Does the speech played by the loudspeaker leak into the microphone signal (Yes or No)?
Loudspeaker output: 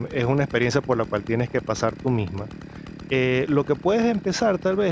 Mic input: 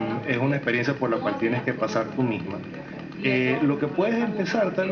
Yes